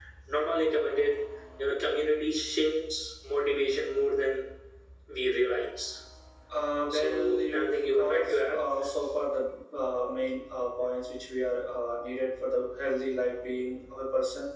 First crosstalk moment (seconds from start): 7 s

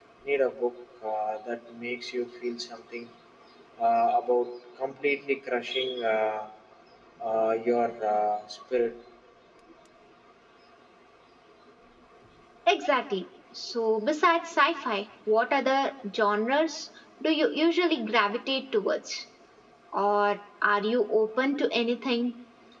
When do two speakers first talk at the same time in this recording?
none

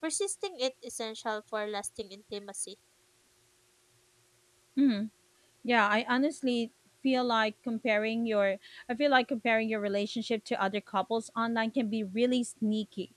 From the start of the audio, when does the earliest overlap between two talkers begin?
none

